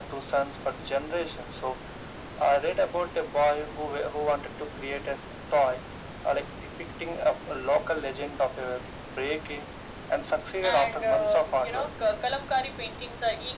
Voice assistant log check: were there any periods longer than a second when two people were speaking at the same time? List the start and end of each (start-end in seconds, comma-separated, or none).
10.6-11.9